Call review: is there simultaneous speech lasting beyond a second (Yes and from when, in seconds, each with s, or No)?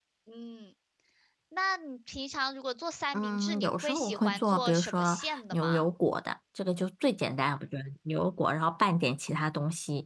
Yes, from 3.1 s